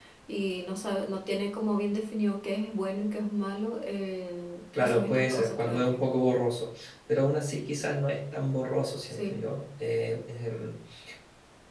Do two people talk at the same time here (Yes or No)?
Yes